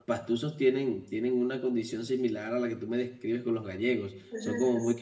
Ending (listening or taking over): listening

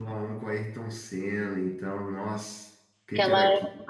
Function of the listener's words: taking over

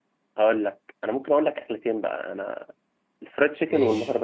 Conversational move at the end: listening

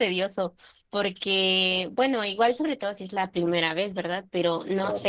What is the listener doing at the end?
listening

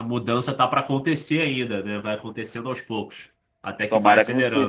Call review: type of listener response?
taking over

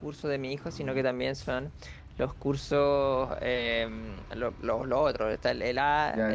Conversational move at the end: taking over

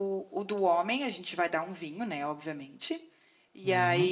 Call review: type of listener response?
listening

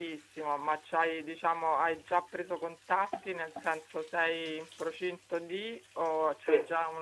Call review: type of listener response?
listening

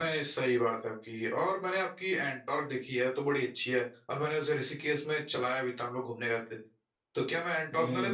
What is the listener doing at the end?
taking over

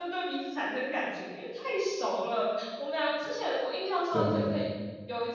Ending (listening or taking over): listening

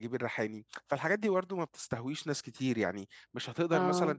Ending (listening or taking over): listening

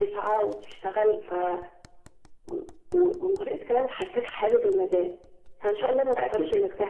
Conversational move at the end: listening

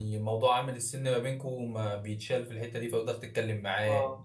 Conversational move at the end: listening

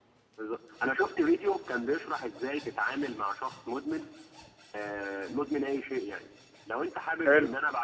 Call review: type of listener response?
listening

